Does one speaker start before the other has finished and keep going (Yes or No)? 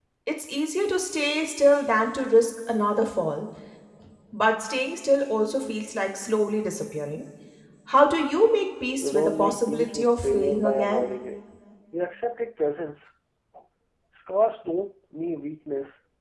Yes